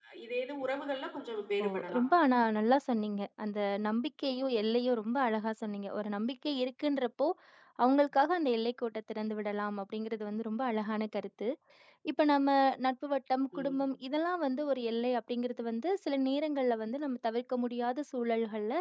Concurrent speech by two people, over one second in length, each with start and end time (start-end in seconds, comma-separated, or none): none